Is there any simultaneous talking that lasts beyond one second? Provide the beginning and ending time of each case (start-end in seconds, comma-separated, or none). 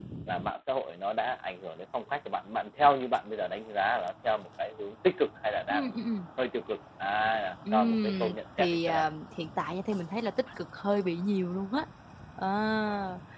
7.7-9.0